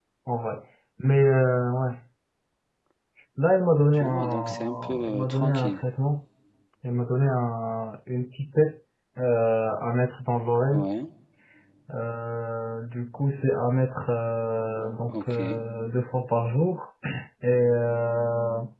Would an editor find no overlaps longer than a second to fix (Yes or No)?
No